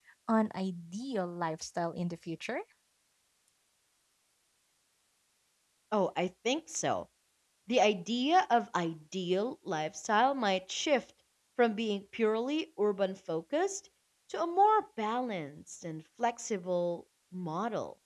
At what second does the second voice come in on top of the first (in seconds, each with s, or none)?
none